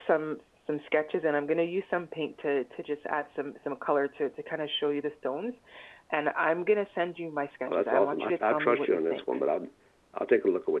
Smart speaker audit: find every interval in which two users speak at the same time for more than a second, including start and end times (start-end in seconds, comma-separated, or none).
7.7-9.2